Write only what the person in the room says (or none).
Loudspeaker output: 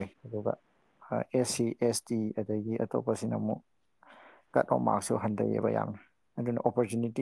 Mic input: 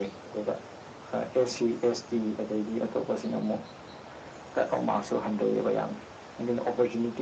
none